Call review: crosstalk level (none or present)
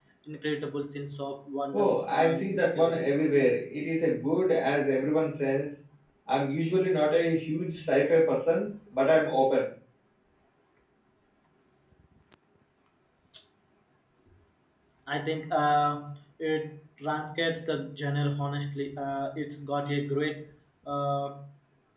present